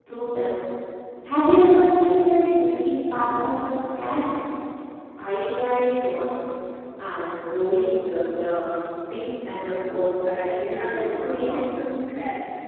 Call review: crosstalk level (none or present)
present